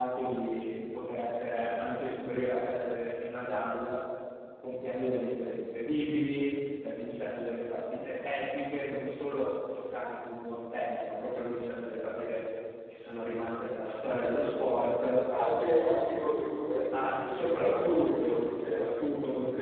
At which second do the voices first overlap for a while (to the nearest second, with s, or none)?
17 s